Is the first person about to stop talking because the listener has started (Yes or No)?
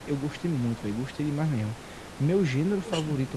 No